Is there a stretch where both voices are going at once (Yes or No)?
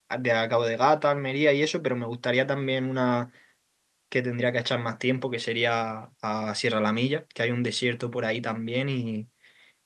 No